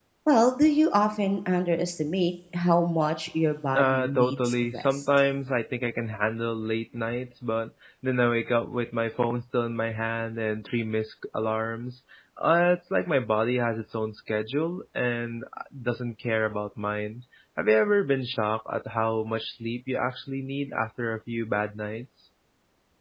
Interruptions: present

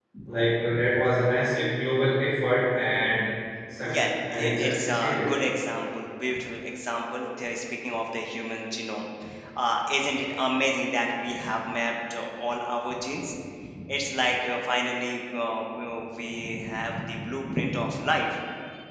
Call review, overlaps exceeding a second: present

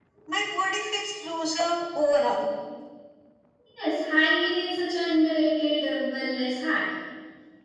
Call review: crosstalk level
none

